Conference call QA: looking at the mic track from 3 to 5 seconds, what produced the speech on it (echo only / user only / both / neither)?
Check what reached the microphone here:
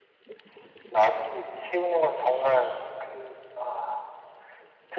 echo only